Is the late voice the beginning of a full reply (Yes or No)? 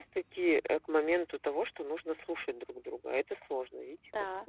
Yes